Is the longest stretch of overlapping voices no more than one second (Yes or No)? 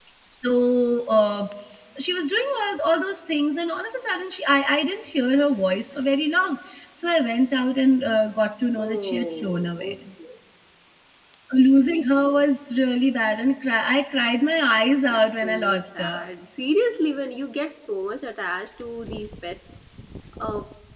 No